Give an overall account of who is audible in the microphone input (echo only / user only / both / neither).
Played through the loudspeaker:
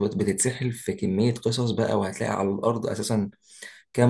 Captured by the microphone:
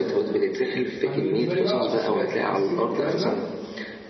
both